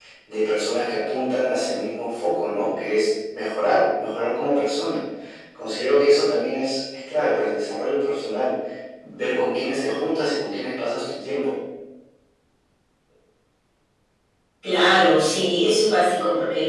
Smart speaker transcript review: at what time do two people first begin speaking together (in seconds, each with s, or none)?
none